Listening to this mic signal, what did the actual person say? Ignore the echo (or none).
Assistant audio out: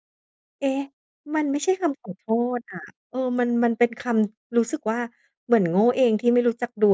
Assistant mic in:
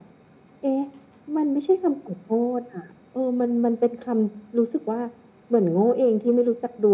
none